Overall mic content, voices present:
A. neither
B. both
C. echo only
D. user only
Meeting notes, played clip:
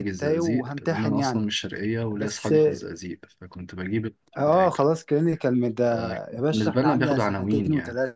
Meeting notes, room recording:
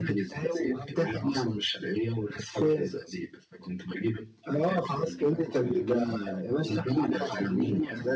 B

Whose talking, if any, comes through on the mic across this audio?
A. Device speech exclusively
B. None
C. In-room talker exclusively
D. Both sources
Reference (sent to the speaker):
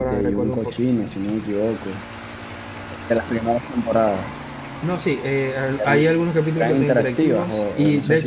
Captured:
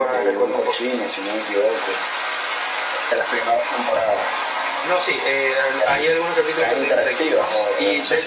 A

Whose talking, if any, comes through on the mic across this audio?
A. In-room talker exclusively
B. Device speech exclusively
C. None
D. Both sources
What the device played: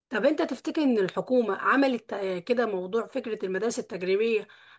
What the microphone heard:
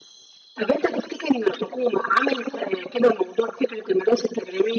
B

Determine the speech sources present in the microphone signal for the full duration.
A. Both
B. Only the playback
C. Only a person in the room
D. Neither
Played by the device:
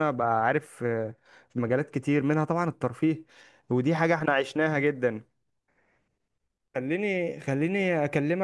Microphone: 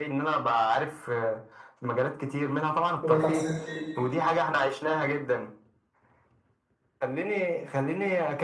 A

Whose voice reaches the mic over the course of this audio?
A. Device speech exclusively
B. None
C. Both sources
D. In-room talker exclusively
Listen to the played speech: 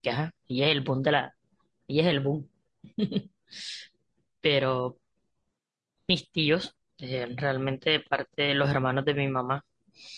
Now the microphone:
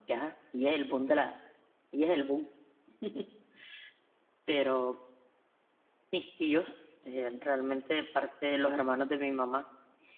A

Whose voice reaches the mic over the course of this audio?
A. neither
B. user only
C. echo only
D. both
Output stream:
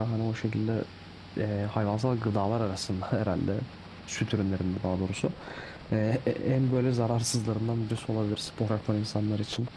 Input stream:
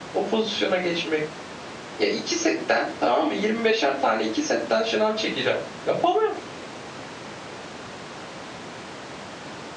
B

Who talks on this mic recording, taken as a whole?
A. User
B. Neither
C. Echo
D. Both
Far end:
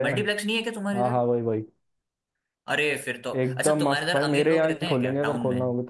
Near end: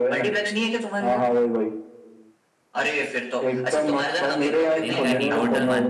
D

